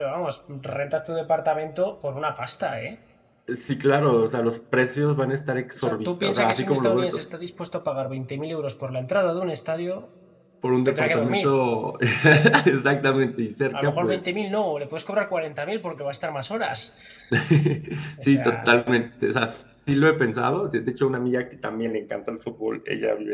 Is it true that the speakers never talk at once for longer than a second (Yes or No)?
No